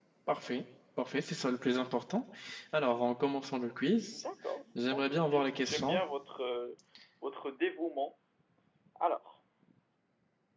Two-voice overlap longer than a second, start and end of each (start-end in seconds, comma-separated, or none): 4.8-6.0